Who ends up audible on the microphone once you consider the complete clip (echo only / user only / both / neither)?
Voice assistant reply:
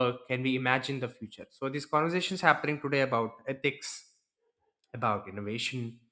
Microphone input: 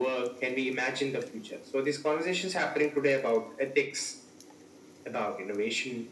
echo only